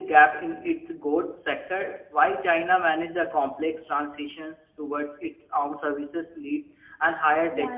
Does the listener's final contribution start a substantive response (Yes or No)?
Yes